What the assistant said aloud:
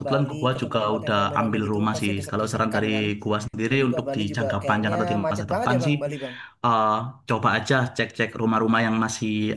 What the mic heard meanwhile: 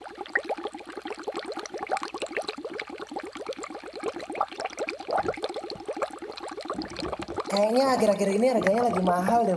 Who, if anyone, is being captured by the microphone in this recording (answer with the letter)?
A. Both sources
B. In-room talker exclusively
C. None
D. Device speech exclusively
B